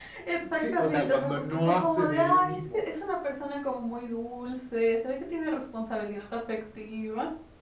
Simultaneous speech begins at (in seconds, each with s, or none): 0.5 s